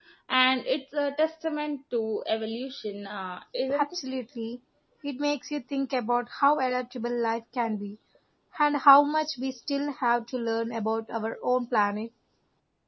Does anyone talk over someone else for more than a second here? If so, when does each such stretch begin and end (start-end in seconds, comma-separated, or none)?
none